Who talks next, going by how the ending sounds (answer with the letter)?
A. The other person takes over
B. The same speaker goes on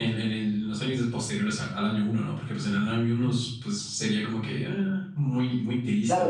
A